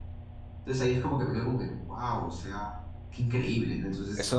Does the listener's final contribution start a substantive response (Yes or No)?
Yes